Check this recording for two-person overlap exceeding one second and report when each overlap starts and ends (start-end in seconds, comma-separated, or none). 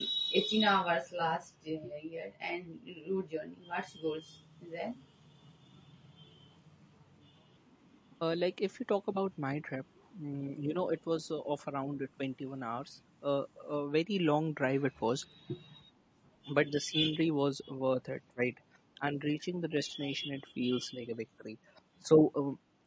none